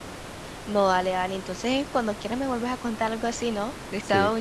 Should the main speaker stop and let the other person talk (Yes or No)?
Yes